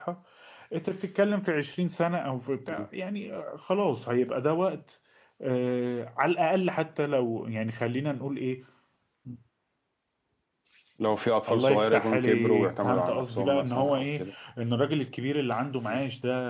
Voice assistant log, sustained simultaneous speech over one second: present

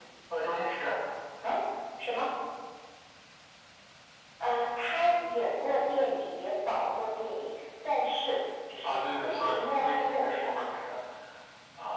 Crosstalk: present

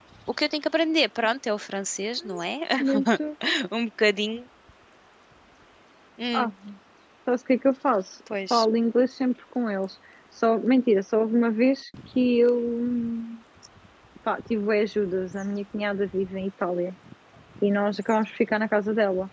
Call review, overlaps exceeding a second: none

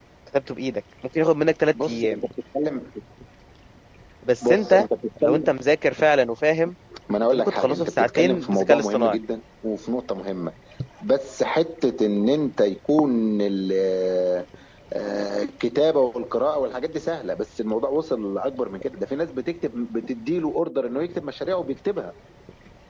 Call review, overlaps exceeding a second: present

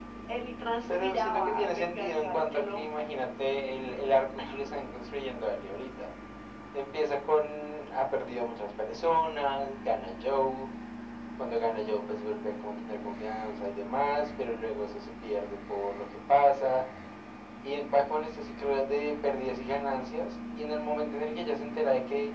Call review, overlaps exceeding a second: present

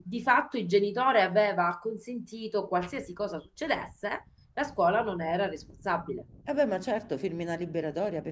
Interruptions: none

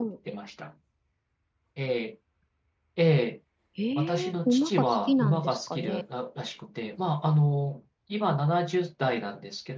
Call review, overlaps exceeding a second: present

